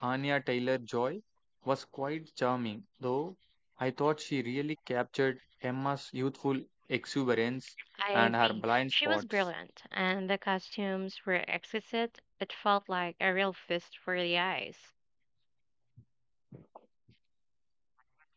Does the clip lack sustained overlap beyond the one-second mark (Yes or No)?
No